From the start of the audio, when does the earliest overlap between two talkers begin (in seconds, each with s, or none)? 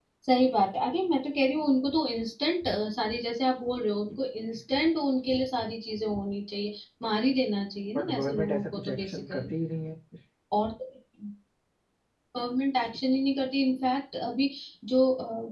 8.0 s